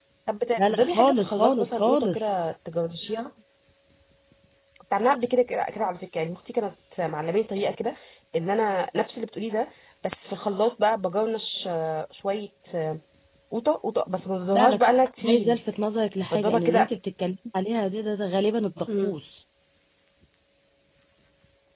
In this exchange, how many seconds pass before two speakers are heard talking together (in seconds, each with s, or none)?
0.6 s